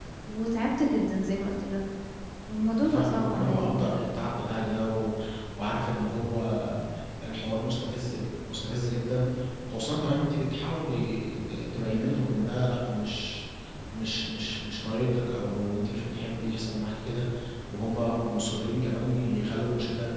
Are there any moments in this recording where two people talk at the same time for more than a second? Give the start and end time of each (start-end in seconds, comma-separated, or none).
2.8-4.1